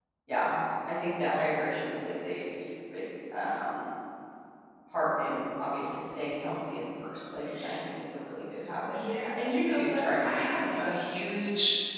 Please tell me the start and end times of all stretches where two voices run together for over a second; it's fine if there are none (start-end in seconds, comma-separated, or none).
9.7-10.9